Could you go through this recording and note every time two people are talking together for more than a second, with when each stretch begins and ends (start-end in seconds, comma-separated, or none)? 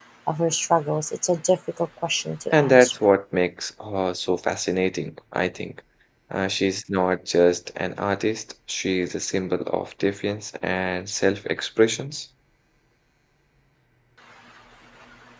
none